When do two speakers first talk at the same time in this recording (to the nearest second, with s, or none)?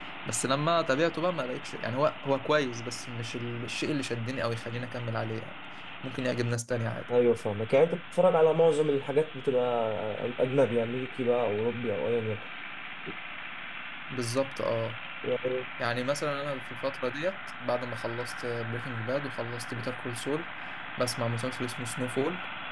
none